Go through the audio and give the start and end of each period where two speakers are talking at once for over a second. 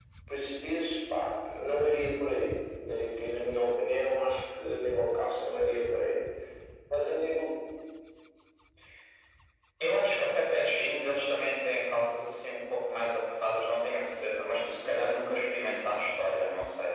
none

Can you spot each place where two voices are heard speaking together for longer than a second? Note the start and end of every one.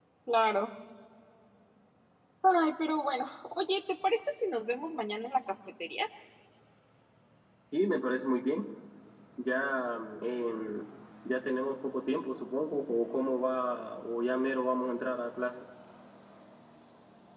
none

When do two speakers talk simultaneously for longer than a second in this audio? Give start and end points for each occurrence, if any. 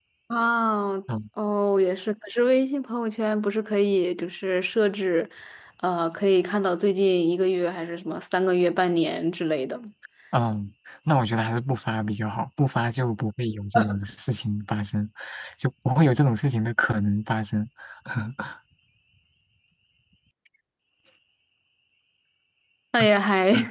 none

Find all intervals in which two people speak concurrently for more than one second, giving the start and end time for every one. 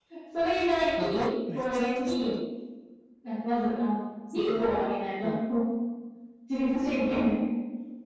1.0-2.3

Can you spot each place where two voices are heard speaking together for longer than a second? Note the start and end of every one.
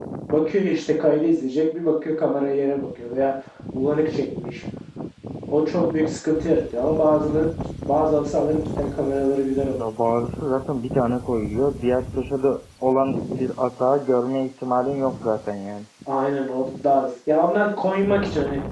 none

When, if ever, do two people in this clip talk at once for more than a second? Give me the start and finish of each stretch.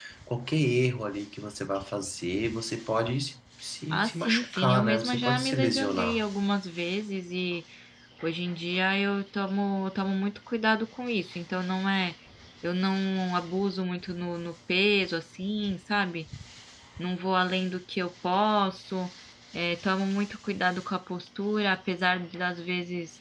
3.9-6.2

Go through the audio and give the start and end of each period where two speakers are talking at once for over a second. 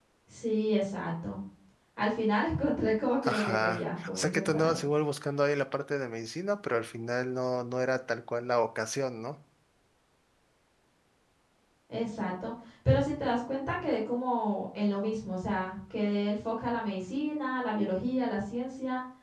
3.2-4.8

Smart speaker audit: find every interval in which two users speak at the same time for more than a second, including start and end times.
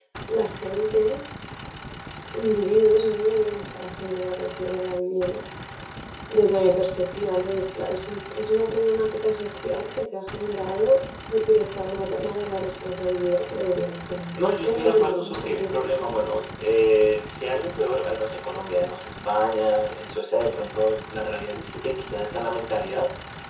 14.3-16.1

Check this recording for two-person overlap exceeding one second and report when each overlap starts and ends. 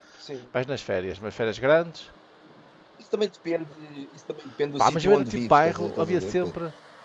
4.8-6.6

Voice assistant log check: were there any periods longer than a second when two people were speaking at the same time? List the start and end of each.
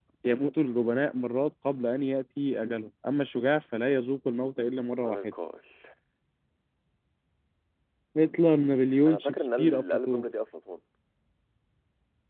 9.1-10.3

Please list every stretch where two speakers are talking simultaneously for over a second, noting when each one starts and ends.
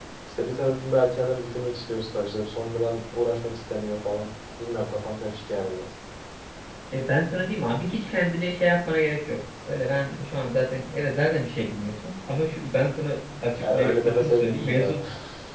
13.6-15.0

